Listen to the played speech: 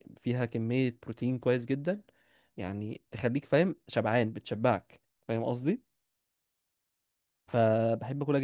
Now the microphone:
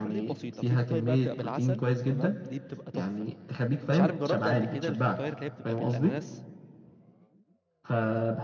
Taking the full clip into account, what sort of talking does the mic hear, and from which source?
both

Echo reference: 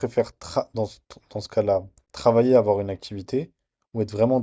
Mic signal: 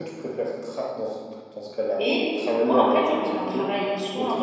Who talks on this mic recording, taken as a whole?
both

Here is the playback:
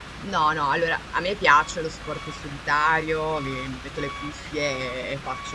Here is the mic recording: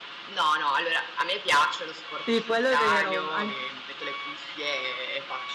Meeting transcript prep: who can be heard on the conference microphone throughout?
both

